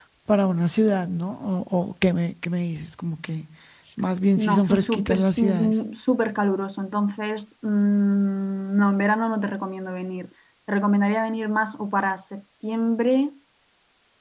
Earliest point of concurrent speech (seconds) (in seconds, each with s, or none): 4.4 s